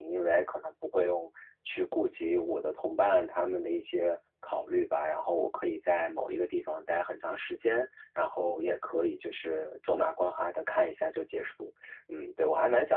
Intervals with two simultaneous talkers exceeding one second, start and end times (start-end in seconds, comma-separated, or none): none